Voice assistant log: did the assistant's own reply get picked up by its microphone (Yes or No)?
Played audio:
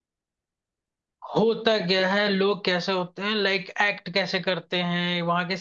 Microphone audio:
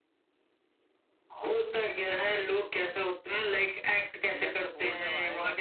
Yes